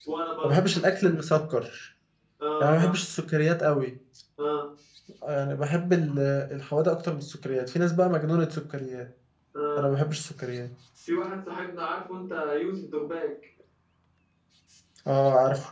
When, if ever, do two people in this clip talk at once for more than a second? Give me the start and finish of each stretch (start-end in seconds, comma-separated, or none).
none